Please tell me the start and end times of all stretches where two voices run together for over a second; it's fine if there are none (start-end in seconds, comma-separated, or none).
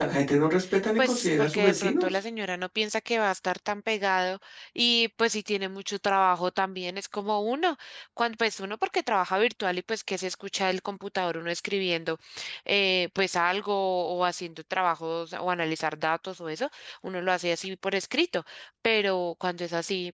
1.0-2.2